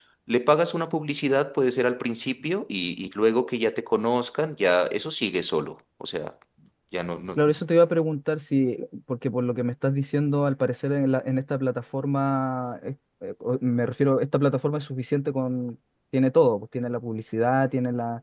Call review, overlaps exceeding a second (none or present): none